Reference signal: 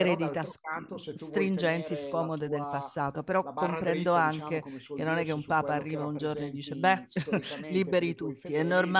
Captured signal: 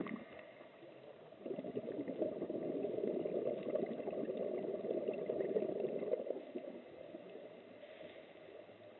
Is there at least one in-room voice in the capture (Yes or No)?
No